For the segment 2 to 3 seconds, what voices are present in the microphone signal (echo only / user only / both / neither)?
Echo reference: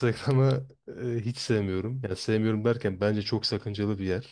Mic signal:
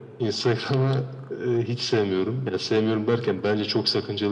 echo only